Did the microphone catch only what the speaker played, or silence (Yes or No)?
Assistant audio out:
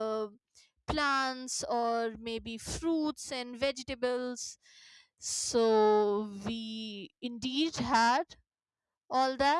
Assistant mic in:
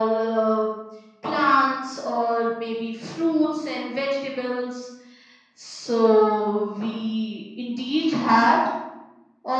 Yes